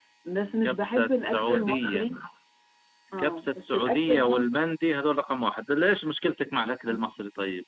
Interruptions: present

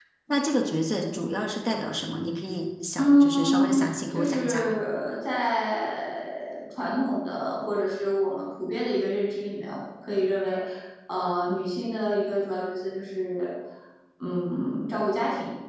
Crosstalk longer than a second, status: present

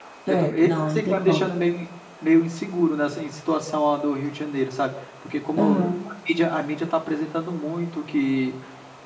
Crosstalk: present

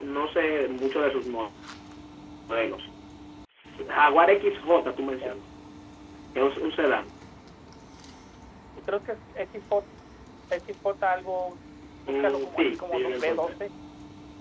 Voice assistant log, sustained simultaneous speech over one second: present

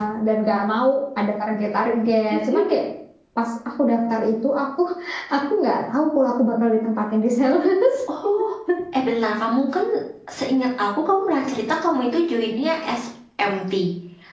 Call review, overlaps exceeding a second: none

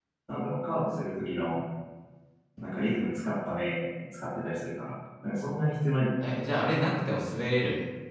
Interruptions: none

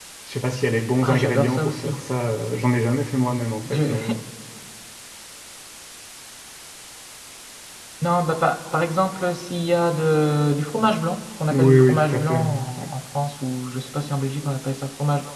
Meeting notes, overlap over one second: present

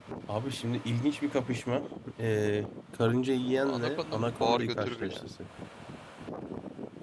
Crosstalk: present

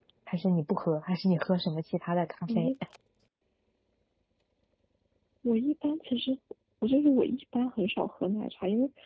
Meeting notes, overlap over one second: none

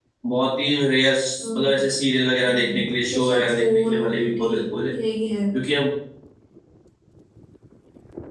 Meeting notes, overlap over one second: present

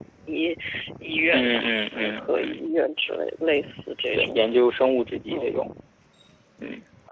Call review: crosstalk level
present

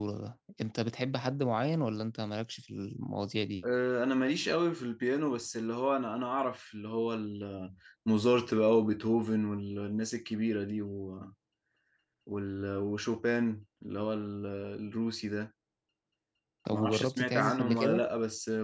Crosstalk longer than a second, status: present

